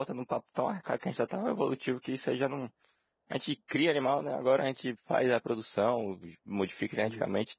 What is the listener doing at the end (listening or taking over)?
listening